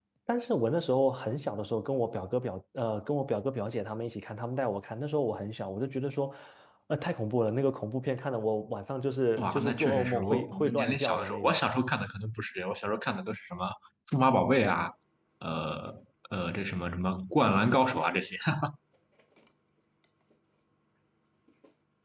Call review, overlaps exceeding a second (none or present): present